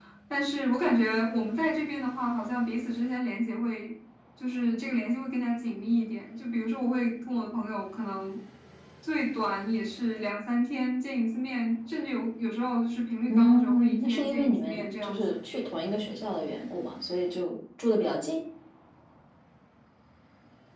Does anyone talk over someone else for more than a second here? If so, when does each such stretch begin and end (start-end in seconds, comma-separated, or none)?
13.3-15.4